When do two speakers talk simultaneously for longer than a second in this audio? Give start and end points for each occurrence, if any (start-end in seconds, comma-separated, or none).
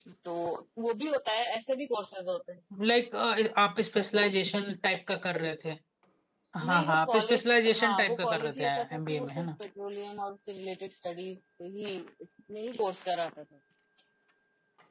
6.7-9.5